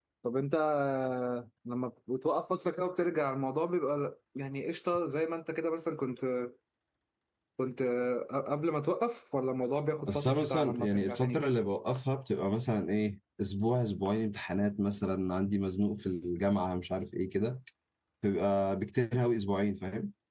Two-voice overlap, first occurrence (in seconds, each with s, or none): 10.1 s